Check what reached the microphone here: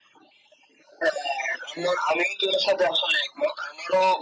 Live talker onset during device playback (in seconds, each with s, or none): none